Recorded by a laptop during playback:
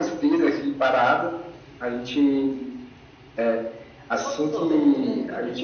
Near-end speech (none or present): present